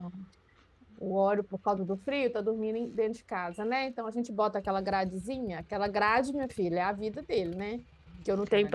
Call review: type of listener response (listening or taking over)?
listening